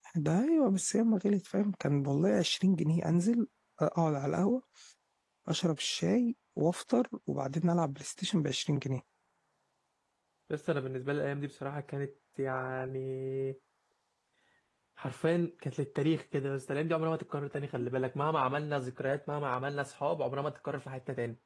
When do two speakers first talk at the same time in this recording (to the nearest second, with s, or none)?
none